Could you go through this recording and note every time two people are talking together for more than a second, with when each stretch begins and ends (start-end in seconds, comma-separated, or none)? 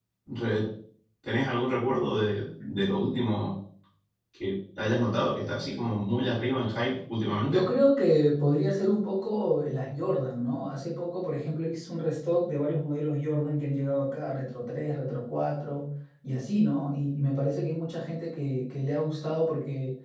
none